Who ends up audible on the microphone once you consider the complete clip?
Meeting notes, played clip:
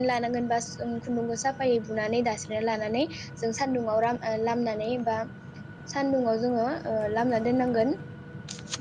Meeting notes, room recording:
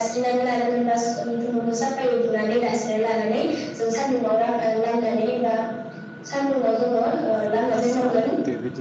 both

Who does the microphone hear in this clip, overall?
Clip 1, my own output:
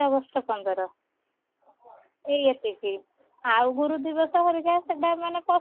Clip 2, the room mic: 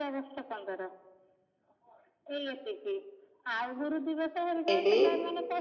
both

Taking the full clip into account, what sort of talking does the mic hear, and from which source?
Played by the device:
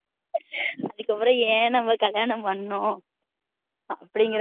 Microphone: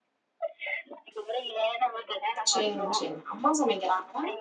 both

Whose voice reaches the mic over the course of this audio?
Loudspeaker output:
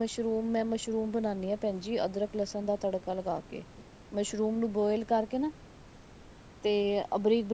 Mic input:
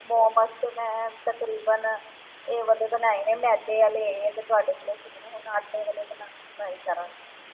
user only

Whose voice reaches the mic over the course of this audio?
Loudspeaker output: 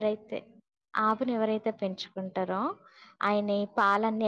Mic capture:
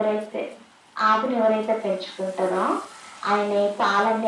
echo only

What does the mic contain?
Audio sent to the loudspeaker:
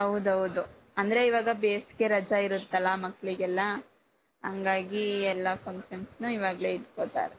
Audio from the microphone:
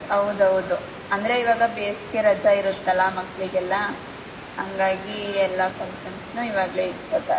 echo only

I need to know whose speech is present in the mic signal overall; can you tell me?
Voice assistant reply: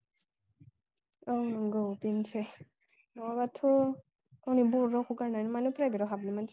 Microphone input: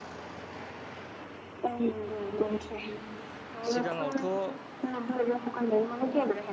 both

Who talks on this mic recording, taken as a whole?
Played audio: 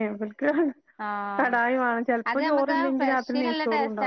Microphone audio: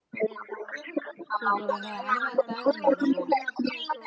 both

